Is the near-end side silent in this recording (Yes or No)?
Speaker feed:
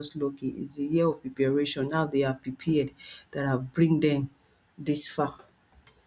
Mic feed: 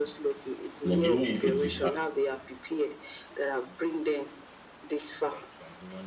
No